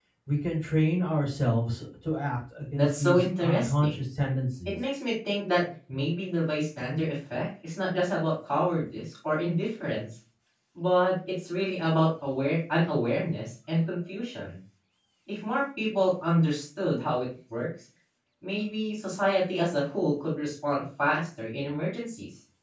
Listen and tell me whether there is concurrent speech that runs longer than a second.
Yes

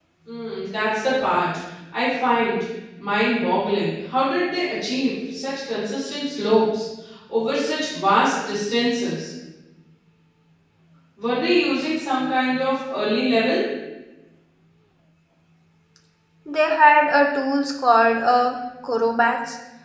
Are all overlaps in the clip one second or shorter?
Yes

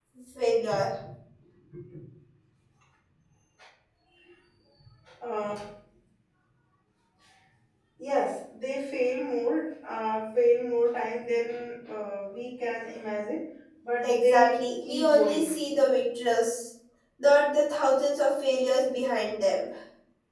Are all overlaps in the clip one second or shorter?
No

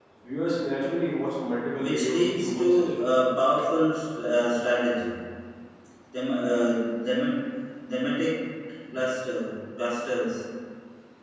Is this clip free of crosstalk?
No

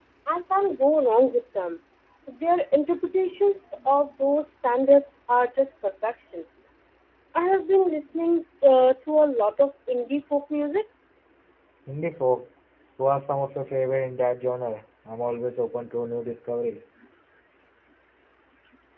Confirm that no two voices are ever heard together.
Yes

